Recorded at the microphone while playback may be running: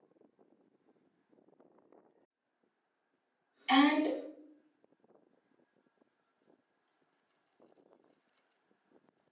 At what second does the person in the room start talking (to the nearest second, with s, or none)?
4 s